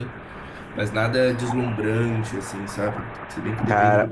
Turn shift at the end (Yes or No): Yes